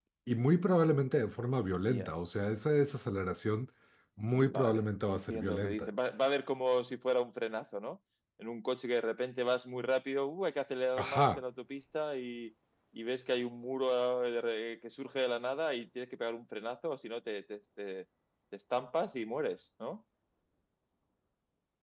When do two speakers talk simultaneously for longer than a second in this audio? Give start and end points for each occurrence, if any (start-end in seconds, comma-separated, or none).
4.3-5.9